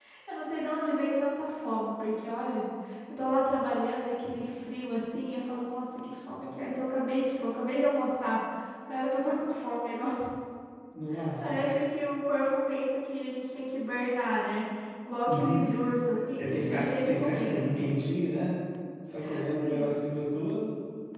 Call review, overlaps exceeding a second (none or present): present